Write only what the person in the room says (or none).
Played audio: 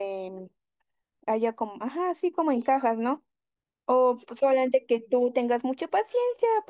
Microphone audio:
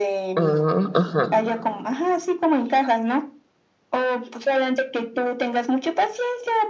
Ah, ajá.